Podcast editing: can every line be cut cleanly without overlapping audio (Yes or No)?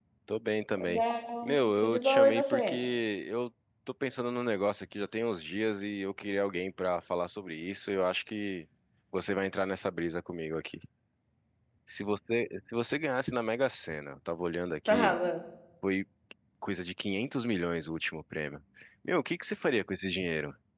No